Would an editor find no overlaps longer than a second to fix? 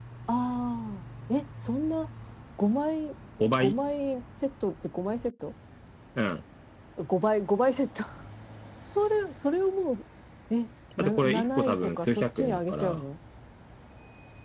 No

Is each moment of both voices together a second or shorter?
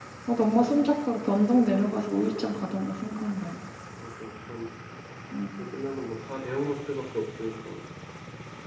Yes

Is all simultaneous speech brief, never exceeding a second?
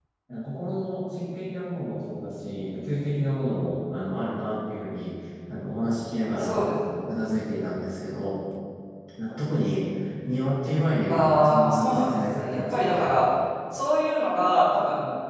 No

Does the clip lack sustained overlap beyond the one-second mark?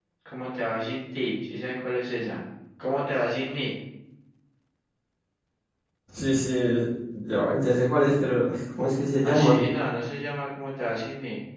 Yes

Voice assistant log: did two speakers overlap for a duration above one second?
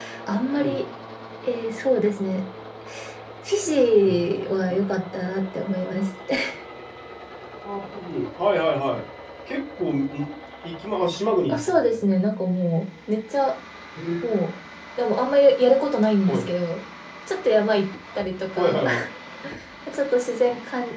No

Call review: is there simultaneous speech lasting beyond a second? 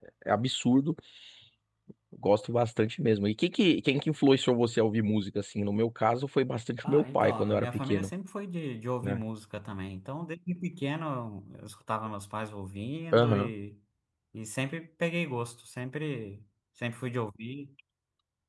Yes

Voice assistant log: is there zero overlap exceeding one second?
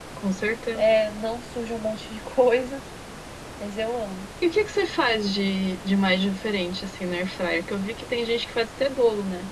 Yes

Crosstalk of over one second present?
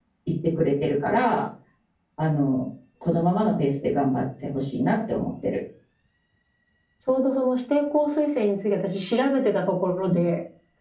No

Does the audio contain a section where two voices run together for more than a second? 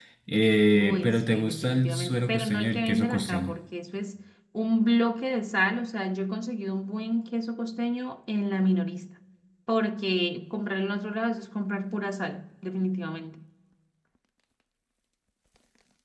Yes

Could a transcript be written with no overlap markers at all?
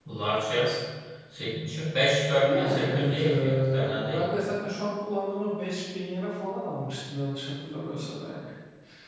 No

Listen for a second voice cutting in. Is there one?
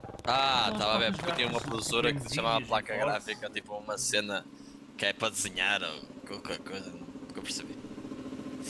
Yes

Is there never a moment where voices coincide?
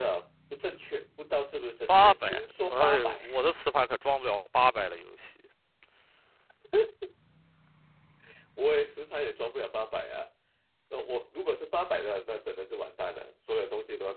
No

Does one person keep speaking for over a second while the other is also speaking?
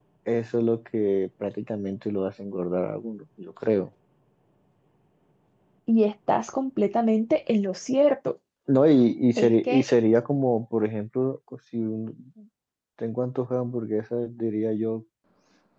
No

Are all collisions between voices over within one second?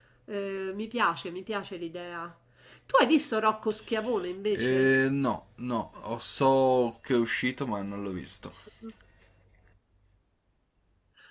Yes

